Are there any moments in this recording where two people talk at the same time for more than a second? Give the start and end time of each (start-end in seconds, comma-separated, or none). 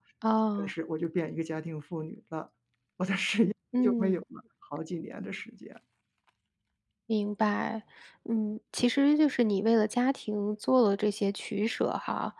none